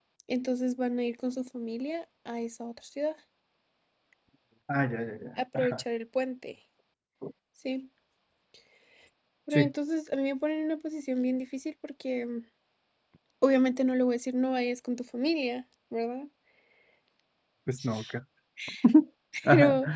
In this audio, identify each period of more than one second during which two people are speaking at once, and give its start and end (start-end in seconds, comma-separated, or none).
none